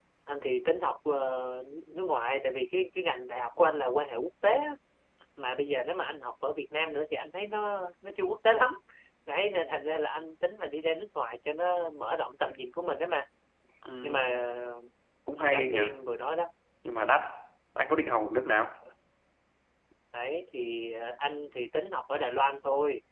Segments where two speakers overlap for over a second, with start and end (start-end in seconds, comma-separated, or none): none